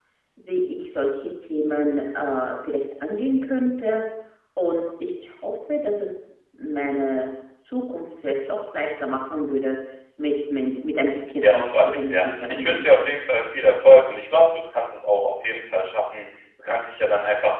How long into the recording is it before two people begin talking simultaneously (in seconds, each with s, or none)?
11.4 s